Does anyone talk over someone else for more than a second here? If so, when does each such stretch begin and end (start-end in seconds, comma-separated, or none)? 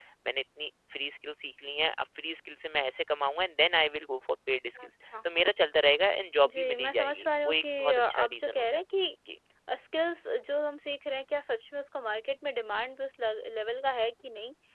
6.5-8.6